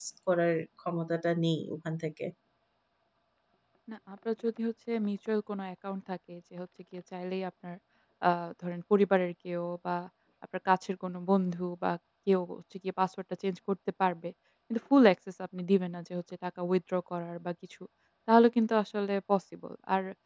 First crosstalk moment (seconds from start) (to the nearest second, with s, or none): none